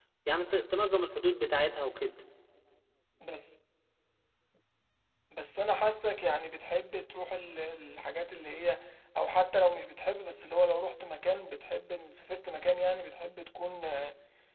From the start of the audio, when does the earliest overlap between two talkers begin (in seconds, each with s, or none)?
none